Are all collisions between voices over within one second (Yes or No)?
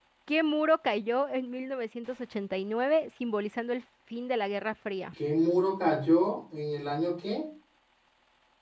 Yes